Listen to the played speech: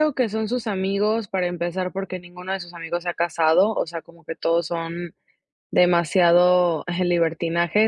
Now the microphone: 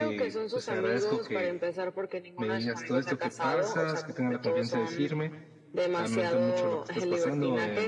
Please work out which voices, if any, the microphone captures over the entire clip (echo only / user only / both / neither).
both